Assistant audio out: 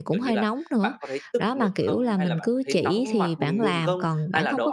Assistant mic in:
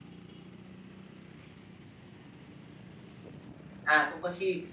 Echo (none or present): none